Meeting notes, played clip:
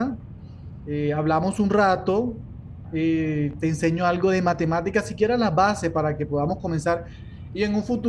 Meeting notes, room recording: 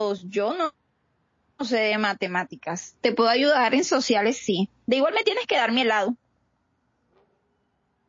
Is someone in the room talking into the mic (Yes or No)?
Yes